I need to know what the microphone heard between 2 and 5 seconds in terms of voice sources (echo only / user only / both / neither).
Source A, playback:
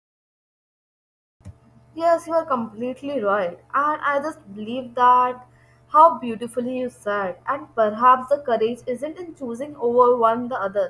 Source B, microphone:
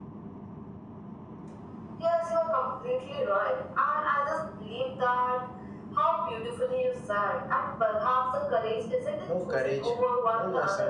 echo only